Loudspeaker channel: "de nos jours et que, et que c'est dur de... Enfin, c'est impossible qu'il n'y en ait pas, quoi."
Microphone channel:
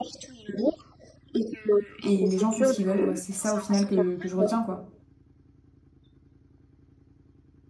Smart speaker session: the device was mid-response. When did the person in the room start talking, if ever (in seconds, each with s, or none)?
2.0 s